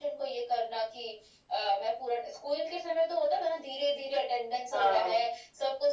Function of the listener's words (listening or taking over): listening